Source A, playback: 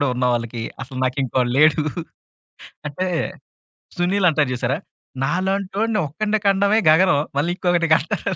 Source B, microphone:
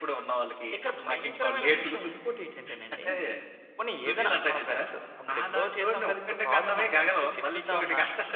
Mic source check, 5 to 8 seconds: both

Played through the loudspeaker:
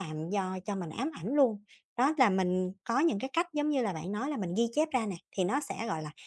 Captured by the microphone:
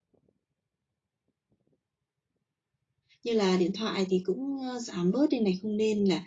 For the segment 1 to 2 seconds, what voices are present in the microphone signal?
neither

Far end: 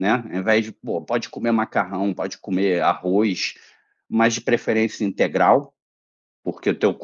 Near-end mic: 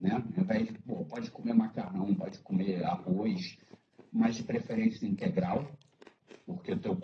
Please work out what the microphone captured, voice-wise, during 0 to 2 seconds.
echo only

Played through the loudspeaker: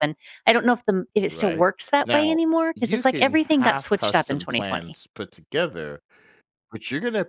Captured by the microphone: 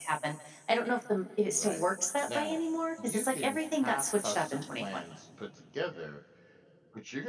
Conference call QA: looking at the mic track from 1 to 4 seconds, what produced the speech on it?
echo only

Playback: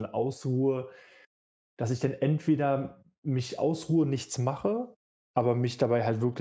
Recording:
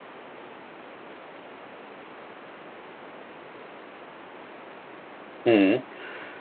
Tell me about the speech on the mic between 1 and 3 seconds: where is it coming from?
neither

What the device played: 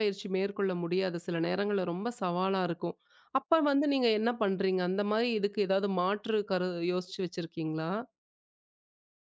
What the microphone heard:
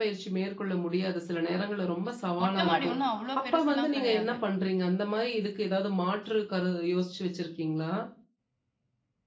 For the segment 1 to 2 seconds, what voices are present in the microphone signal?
echo only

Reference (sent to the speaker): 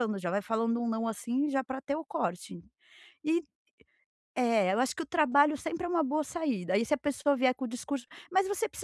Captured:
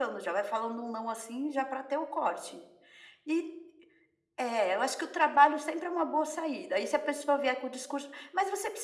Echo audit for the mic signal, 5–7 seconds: echo only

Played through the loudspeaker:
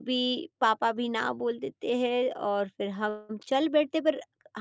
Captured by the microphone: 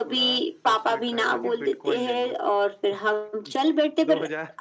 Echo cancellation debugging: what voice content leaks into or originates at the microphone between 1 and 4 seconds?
both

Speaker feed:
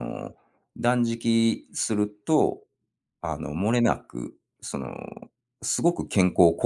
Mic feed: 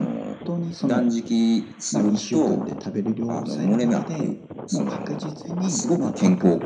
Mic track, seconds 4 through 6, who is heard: both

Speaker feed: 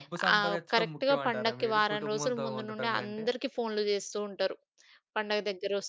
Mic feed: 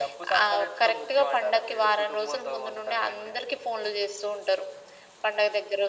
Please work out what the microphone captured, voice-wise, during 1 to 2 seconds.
echo only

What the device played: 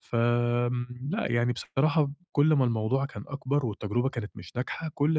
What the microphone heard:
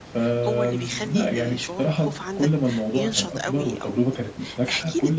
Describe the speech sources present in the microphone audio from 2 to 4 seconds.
both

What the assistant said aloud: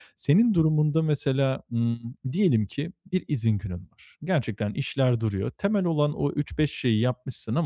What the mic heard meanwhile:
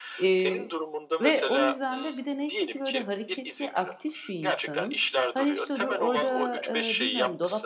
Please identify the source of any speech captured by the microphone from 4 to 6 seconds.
both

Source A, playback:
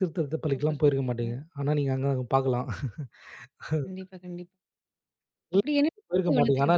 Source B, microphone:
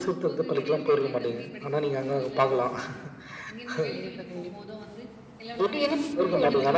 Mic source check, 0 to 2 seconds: both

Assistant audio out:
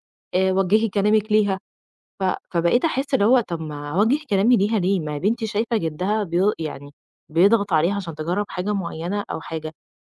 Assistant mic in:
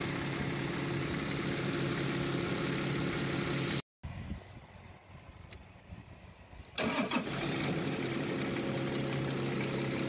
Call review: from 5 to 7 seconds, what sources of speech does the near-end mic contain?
neither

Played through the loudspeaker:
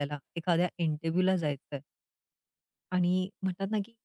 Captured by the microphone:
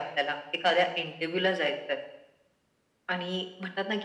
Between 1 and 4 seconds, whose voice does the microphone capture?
echo only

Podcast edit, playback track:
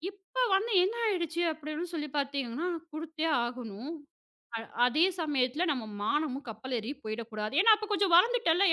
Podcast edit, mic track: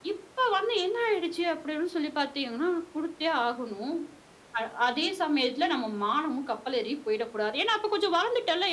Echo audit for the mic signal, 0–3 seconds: echo only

